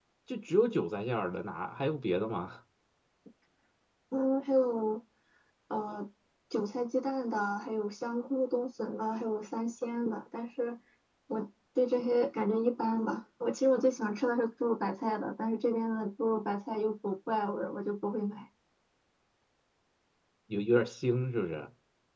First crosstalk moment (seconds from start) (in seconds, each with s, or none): none